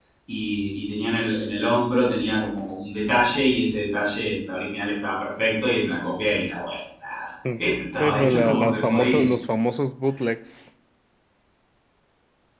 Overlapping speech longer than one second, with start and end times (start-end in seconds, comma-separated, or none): 8.0-9.3